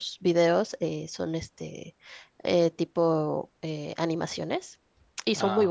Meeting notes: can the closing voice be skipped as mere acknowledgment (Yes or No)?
Yes